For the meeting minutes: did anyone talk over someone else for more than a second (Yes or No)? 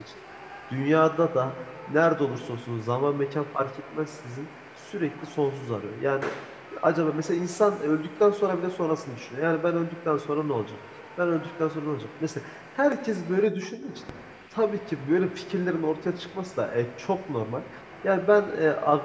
No